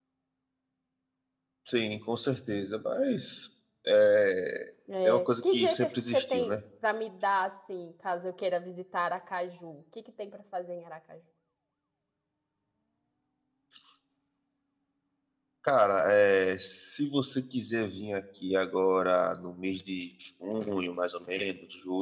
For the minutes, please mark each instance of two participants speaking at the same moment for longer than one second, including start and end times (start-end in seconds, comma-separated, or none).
5.0-6.6